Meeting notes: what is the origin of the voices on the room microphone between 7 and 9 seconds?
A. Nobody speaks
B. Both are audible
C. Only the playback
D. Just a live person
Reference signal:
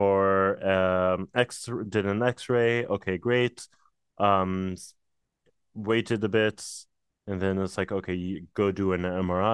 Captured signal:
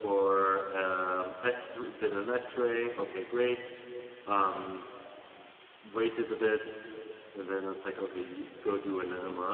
C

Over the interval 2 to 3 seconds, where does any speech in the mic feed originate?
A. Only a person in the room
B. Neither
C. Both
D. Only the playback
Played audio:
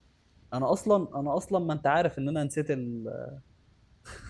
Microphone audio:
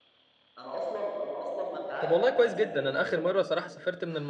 C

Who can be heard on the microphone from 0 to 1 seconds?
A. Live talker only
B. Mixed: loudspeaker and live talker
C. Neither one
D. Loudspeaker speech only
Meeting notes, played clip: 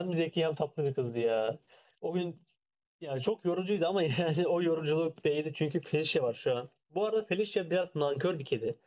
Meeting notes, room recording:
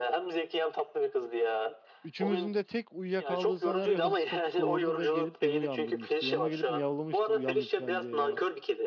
D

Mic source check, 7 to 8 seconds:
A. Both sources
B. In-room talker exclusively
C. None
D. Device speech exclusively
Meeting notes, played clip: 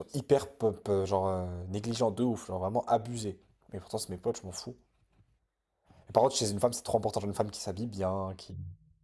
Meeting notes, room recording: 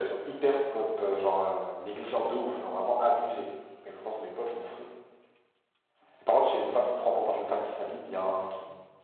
D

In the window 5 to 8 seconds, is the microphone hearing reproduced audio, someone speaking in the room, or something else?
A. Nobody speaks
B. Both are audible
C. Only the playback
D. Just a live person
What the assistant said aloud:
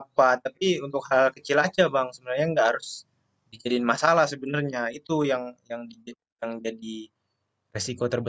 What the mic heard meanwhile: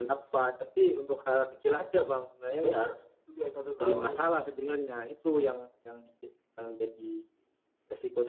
C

